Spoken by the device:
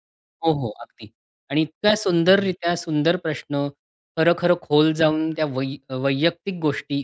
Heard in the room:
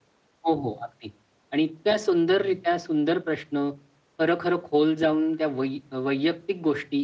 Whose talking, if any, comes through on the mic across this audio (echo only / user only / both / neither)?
echo only